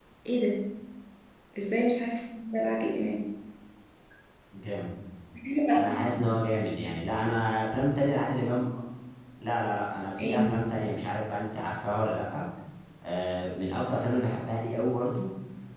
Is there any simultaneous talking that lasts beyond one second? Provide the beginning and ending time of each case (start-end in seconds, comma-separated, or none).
none